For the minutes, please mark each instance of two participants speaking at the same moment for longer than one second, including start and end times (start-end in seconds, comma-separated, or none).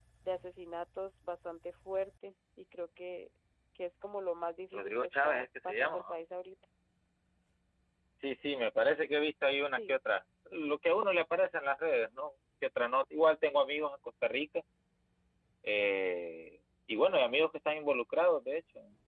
4.7-6.2